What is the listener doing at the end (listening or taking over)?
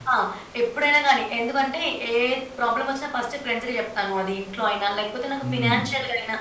listening